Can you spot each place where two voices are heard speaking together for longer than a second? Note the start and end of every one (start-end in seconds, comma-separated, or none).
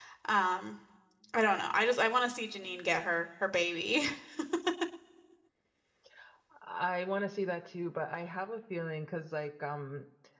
none